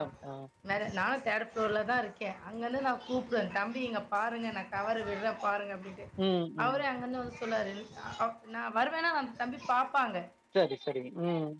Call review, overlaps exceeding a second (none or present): none